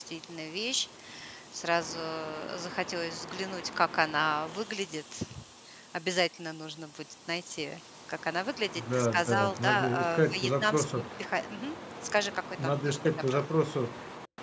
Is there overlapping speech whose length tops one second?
Yes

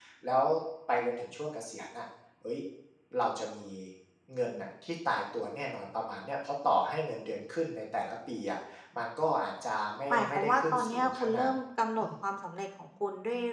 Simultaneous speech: Yes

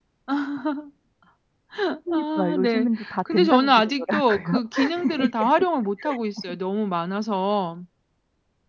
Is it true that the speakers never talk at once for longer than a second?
No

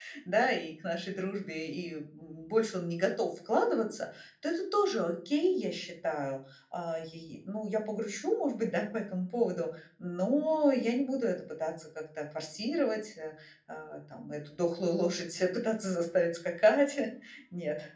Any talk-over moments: No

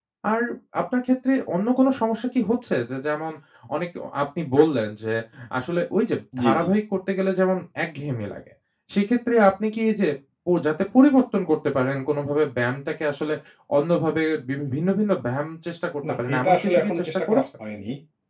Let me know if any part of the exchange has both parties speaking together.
Yes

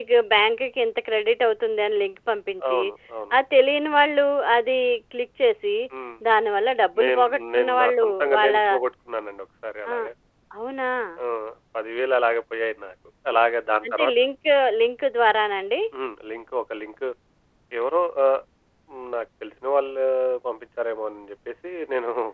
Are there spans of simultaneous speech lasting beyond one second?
Yes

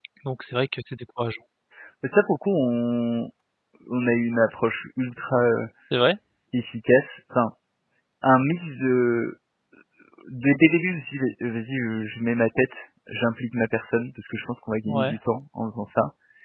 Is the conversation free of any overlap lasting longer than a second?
Yes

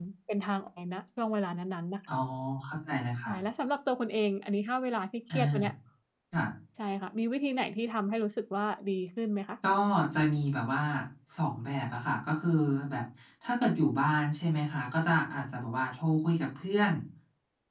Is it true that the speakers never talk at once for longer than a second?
Yes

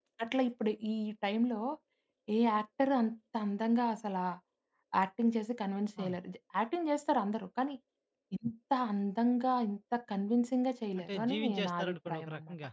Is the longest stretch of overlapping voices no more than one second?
No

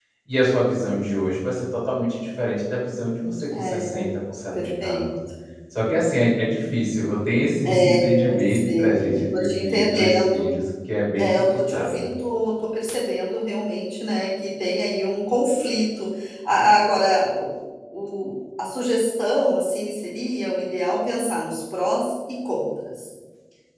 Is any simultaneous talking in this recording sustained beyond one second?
Yes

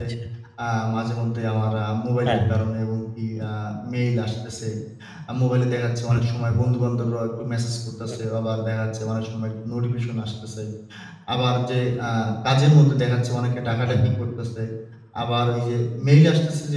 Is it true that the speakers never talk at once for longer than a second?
Yes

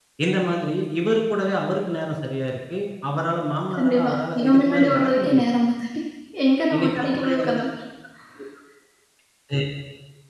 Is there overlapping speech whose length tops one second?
Yes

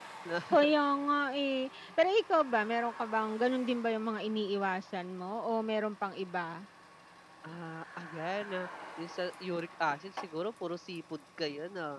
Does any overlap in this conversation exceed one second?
No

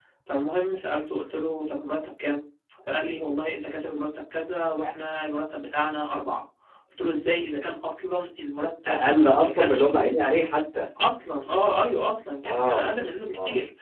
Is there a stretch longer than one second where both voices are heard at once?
Yes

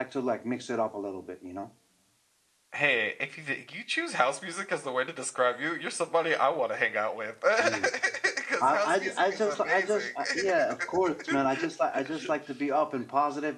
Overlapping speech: Yes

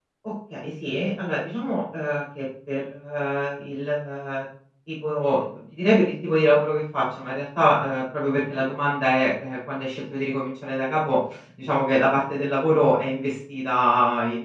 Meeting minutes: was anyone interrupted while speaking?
No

